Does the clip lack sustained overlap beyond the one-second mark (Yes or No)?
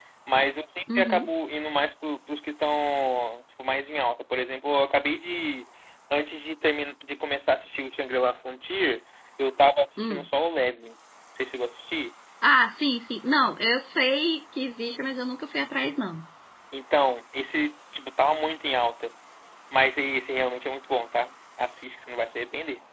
Yes